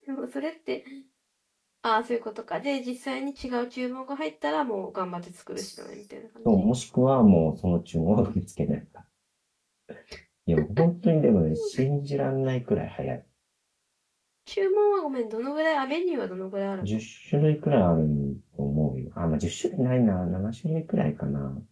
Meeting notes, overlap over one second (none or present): none